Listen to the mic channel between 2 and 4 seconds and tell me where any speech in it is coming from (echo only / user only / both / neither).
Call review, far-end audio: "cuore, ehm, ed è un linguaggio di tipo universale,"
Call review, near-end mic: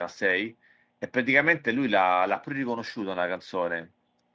user only